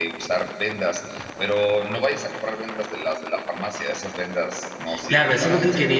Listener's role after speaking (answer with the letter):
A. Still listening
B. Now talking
B